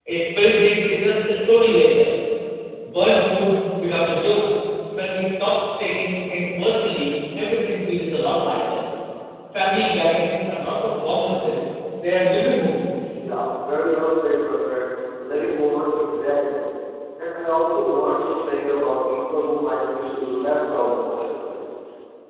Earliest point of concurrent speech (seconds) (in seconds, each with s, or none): none